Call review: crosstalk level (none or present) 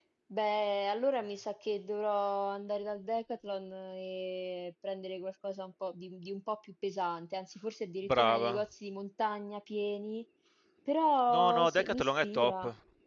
present